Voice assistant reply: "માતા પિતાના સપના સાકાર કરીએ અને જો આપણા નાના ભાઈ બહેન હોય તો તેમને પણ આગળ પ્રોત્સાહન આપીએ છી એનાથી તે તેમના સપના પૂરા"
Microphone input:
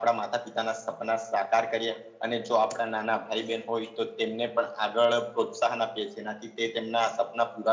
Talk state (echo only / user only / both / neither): echo only